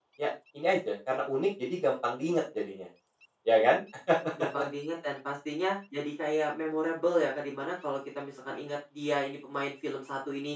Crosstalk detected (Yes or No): No